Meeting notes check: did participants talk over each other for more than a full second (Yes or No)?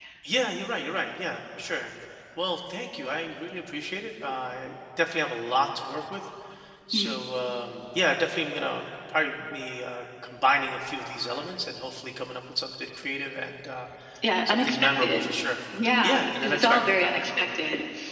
Yes